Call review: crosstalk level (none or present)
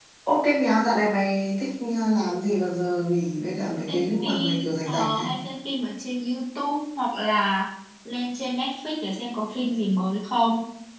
present